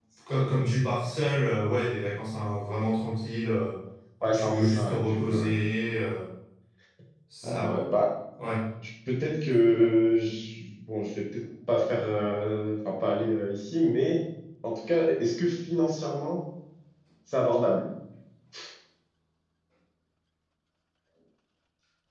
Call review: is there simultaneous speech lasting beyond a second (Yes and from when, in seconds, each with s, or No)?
Yes, from 4.2 s